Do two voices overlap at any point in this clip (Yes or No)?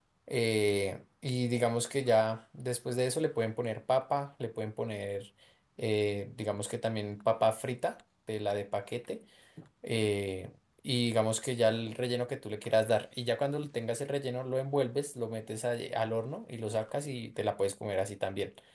No